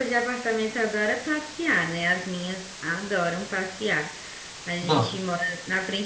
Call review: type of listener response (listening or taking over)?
listening